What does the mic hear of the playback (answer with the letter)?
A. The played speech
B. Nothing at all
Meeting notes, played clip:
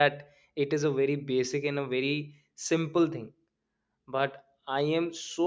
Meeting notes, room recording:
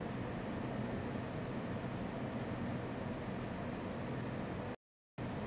B